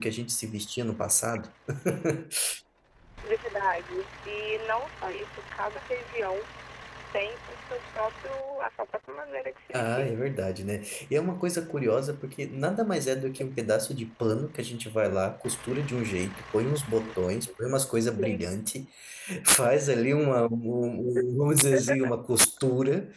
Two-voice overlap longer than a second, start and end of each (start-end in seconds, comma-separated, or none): none